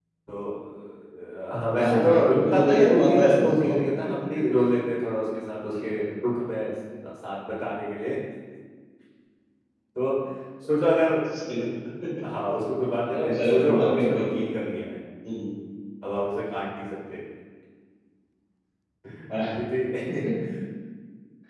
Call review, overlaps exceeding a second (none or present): present